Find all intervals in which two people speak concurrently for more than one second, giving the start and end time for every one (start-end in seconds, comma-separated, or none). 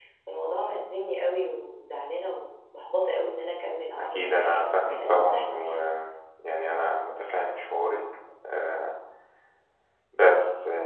4.0-5.7